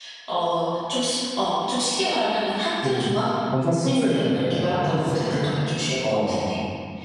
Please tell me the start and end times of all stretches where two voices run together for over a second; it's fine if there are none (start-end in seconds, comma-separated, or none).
3.7-5.5